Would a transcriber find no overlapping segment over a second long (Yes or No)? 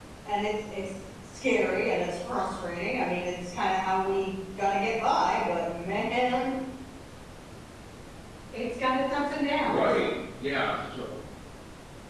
Yes